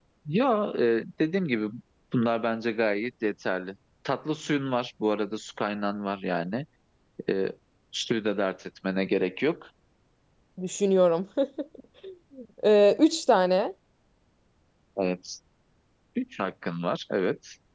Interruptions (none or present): none